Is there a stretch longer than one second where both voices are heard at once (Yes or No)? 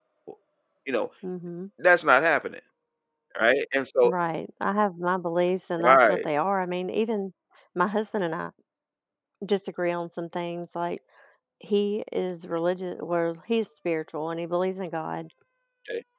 No